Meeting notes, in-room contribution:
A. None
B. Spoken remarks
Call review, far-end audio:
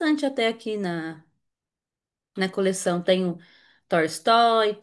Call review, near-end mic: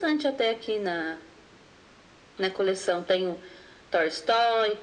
A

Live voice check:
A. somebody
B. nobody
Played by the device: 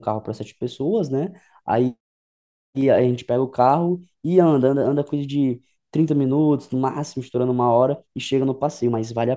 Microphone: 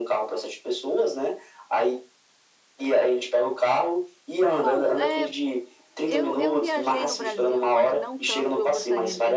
A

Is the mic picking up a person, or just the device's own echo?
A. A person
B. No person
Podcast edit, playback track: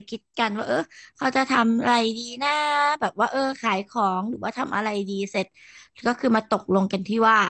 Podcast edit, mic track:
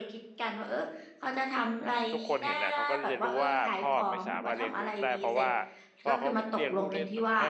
A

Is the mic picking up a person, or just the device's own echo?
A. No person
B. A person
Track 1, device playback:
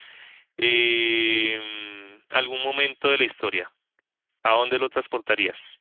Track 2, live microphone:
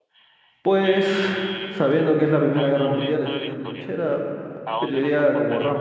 B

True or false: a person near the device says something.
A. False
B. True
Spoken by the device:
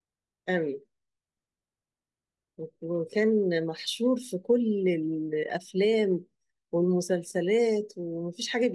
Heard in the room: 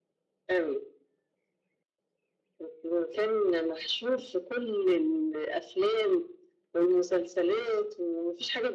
A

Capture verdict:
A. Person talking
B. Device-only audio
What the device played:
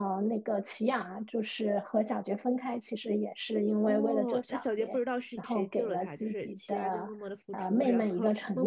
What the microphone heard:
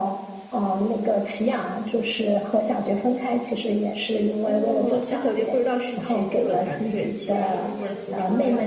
A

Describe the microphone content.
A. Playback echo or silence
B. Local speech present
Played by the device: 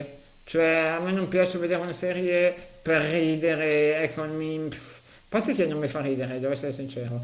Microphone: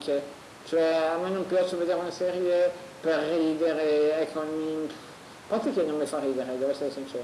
A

